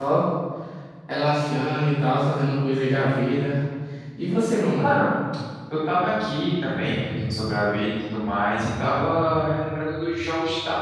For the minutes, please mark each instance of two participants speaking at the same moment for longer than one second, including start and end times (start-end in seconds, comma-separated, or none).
none